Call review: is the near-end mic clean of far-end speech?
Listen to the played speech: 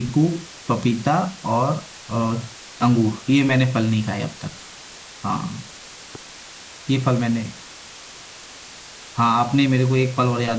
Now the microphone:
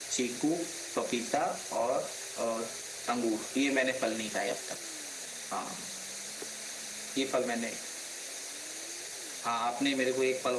No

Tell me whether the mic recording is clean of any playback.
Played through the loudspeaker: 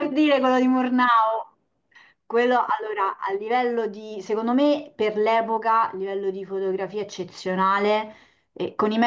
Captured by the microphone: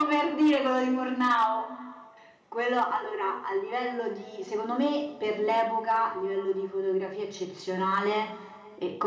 No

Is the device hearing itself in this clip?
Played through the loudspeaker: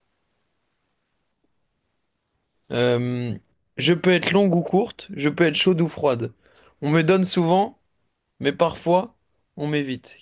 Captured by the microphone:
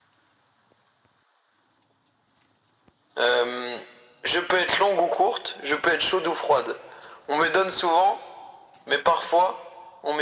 Yes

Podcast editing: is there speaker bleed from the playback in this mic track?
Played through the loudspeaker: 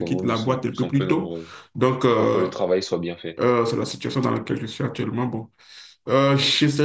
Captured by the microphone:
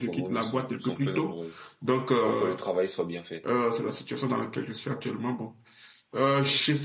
Yes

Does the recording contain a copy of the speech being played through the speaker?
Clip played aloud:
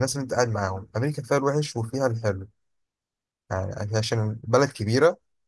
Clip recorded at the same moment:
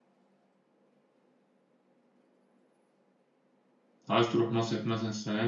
No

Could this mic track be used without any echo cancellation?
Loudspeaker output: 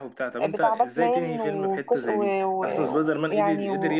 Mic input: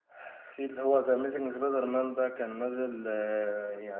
Yes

